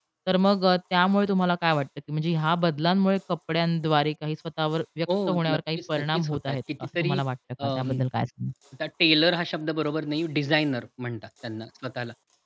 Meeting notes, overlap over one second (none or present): present